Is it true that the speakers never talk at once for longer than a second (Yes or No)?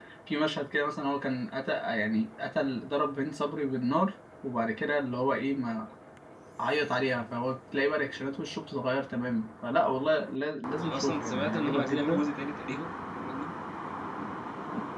No